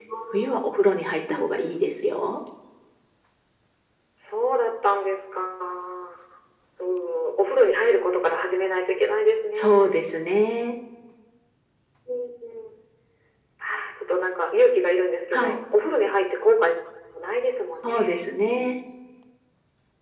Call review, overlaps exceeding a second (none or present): none